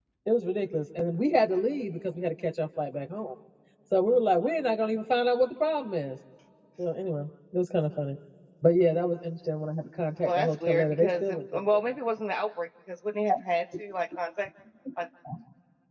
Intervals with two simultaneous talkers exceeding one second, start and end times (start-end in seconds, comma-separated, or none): 10.2-11.9